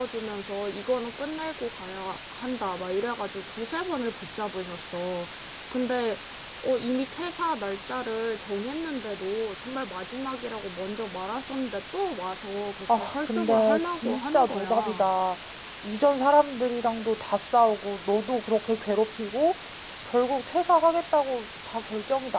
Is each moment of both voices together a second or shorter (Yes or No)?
No